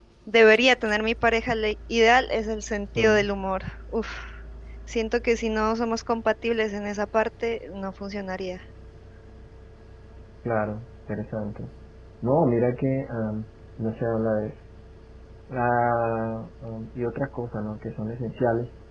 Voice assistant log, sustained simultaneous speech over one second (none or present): none